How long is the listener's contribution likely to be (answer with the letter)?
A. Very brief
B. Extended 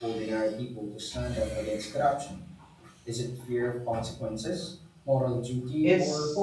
B